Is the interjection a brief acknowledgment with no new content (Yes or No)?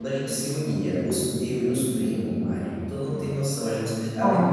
Yes